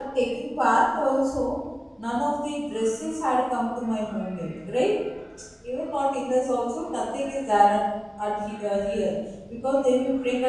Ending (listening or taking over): listening